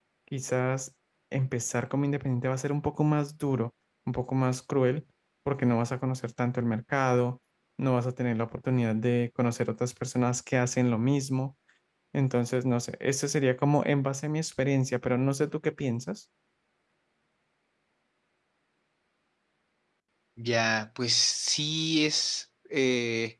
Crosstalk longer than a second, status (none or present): none